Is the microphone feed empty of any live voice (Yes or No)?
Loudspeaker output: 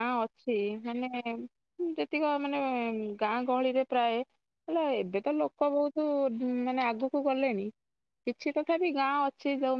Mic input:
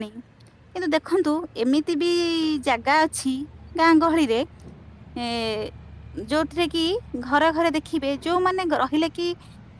No